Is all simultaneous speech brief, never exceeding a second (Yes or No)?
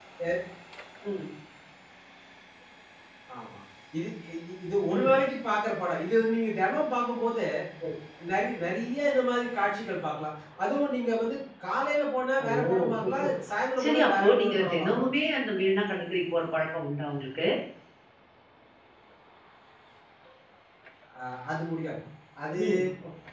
No